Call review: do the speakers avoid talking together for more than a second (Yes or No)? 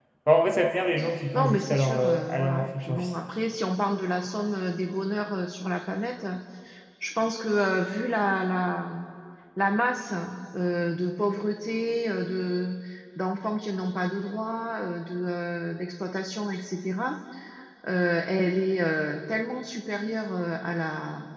No